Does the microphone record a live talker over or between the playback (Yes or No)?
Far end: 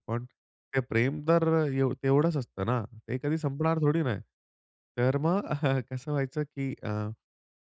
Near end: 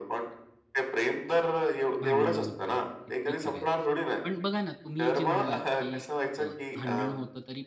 Yes